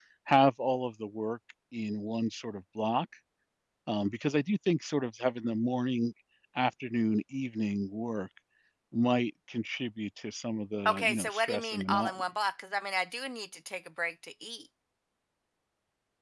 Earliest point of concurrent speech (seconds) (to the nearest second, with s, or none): 11 s